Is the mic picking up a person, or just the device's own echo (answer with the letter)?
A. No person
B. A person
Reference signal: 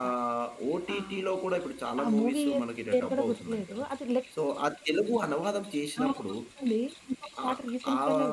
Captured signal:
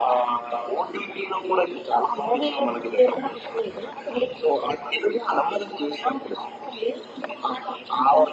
A